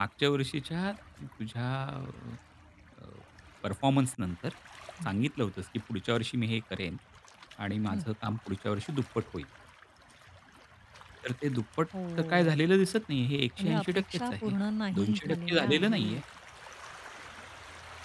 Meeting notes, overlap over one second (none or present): present